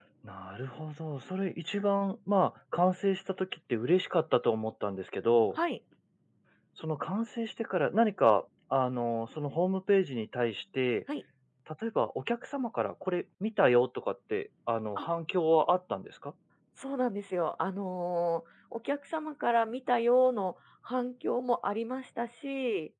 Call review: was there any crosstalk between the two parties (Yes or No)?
No